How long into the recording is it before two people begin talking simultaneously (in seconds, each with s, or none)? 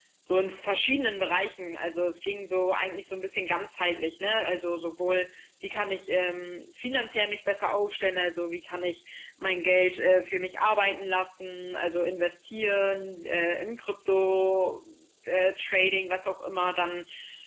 none